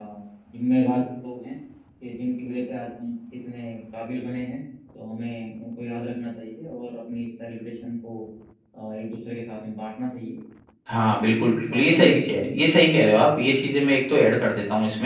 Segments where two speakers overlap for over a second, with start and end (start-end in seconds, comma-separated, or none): 11.1-12.6